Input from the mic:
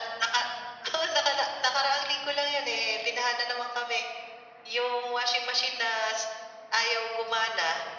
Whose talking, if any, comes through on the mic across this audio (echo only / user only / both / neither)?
echo only